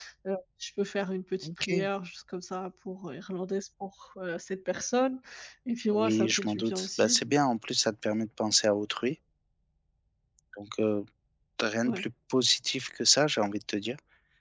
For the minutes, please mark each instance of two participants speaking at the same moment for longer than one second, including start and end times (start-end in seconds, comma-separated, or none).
5.9-7.2